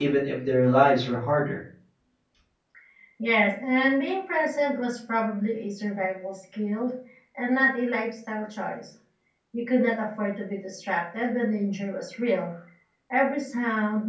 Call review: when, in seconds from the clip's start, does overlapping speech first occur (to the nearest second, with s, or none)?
none